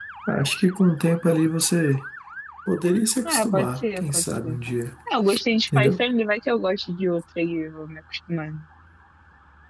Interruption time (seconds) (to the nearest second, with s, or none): 3 s